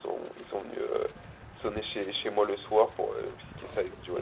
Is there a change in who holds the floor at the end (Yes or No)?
No